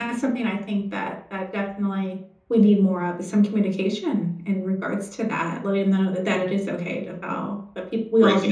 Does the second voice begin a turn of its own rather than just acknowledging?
Yes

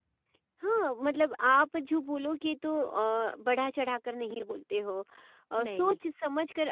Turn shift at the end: No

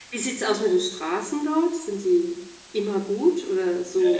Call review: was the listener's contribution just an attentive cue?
No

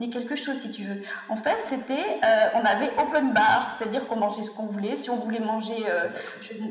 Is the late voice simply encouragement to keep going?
Yes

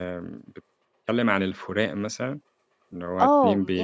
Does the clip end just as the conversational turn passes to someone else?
Yes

